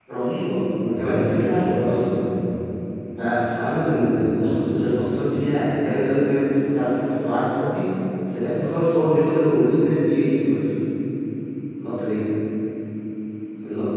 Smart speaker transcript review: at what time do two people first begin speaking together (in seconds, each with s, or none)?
0.8 s